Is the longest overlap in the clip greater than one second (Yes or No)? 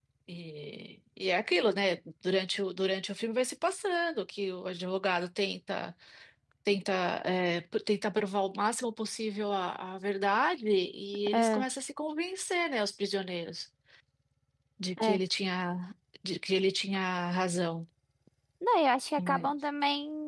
No